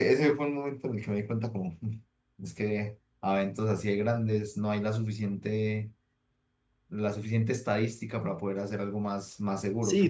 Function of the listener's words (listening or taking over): taking over